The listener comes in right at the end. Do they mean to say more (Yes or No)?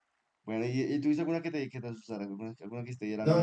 Yes